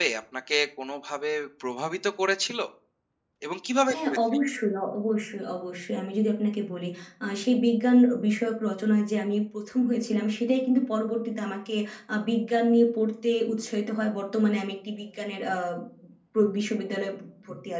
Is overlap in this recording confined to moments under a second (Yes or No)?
Yes